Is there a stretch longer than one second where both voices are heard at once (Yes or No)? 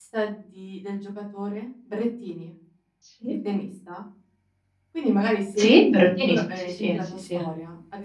Yes